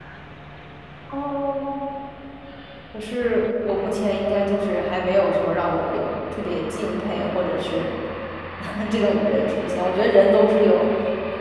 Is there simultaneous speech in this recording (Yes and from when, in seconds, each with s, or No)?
No